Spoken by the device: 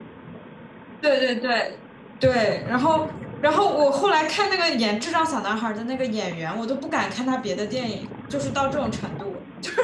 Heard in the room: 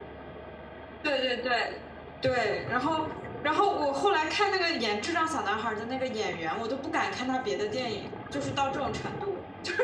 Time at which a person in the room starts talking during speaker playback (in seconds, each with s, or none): none